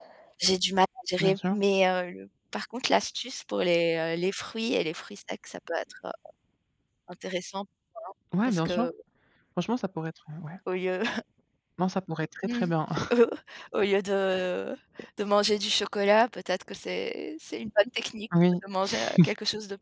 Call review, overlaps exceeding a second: none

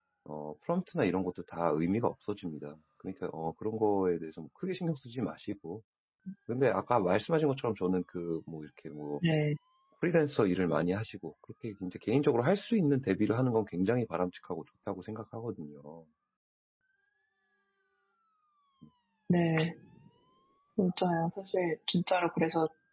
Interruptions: none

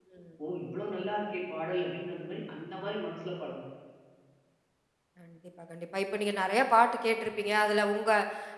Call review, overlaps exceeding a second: none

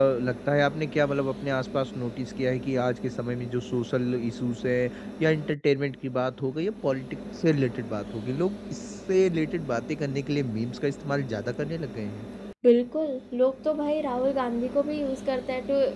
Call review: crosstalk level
none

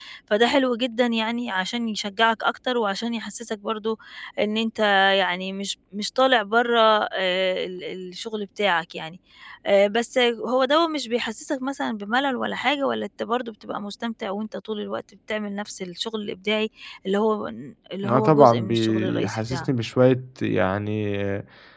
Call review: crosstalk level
present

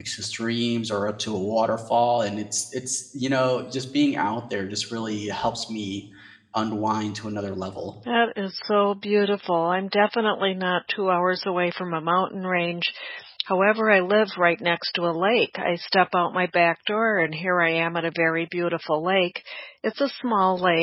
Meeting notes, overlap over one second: none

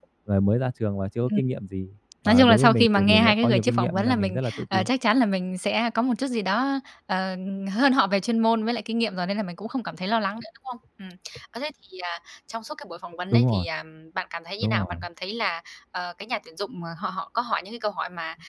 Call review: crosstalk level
present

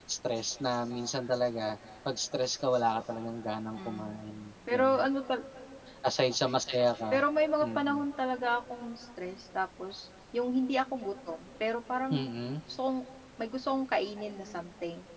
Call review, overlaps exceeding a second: none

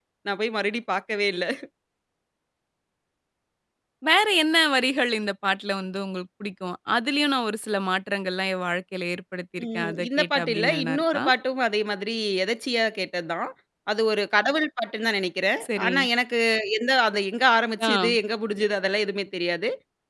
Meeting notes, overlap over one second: present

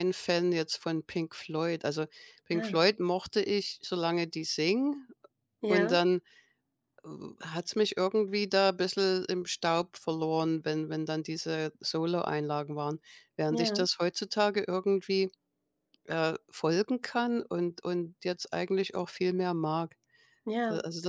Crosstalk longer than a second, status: none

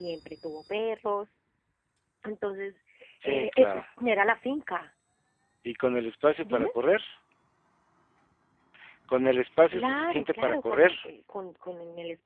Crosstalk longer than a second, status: present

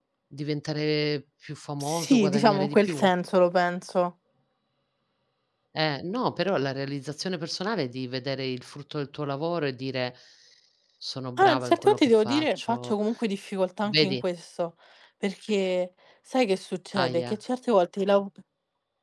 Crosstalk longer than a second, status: present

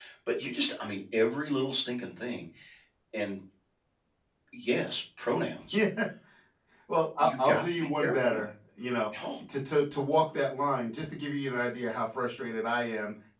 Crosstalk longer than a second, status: present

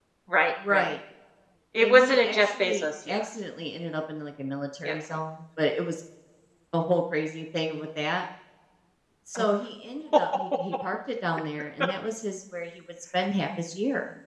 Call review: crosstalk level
present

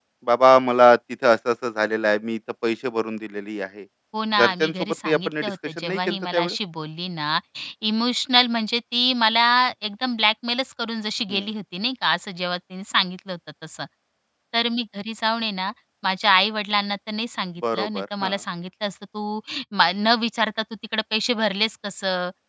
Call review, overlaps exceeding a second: present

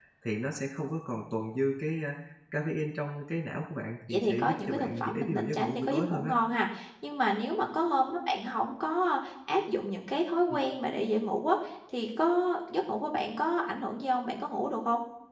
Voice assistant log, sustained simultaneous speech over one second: present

